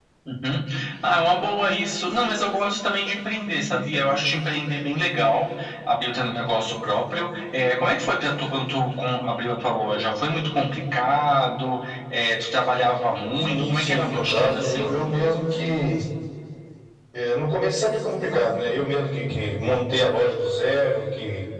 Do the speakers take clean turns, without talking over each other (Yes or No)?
No